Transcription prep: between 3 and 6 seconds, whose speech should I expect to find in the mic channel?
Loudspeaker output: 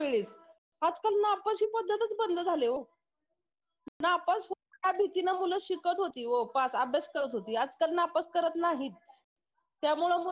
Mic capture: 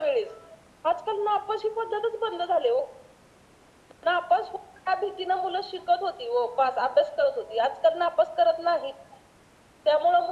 echo only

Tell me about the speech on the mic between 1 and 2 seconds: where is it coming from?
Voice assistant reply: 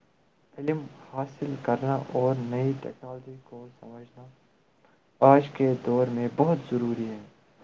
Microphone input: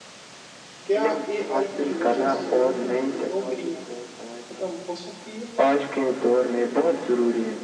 both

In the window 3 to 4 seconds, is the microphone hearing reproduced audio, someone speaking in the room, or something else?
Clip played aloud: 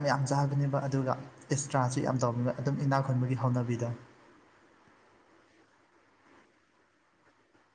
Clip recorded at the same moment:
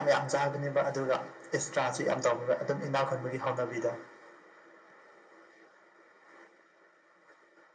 echo only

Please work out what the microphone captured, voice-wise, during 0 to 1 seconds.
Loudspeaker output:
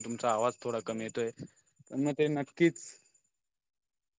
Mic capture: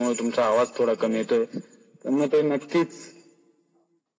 echo only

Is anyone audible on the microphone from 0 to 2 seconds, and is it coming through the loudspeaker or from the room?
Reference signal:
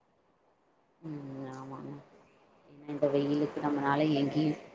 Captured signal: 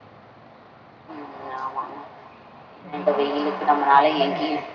echo only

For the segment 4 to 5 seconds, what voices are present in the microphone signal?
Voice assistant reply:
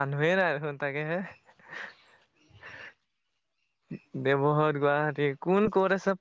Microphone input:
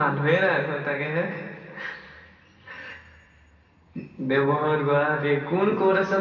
echo only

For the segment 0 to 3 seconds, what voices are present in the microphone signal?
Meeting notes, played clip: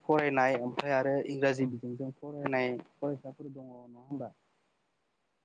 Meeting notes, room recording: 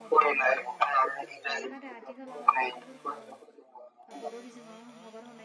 both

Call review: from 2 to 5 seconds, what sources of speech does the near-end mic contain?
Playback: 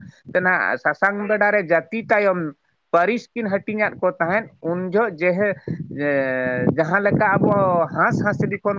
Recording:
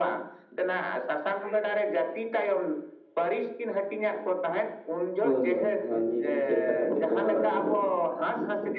echo only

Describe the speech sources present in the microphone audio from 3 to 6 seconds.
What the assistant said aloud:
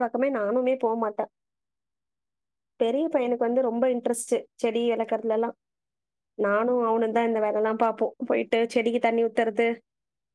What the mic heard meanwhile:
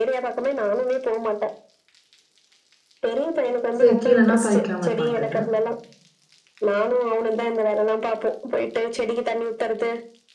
both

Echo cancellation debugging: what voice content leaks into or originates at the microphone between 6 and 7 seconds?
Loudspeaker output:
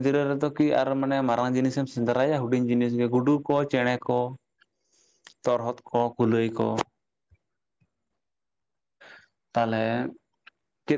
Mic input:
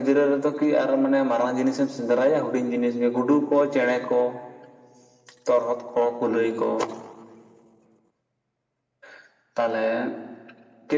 echo only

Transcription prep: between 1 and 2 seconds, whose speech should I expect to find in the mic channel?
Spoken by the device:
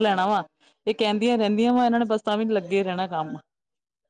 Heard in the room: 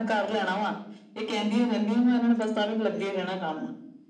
echo only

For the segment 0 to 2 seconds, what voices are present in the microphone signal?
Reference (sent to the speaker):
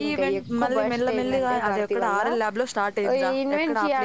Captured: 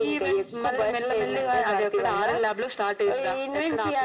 echo only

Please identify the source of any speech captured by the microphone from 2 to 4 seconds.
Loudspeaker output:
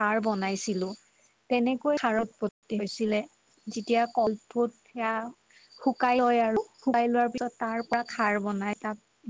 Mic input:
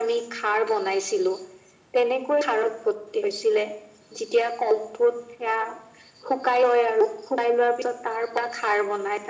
echo only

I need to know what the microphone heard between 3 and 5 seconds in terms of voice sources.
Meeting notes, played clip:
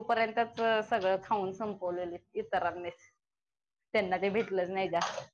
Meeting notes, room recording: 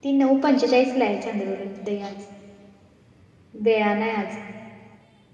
user only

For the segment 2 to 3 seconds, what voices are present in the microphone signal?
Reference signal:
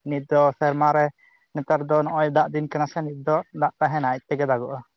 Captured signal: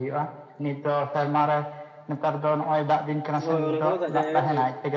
echo only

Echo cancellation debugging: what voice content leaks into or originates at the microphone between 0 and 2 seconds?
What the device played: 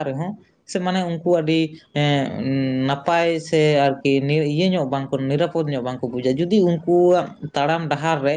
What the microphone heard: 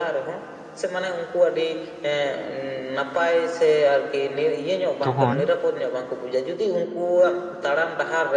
echo only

